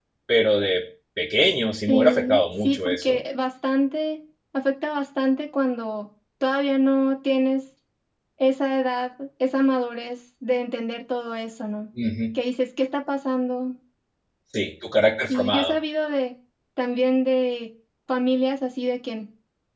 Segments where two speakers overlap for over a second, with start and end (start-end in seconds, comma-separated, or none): 1.9-3.2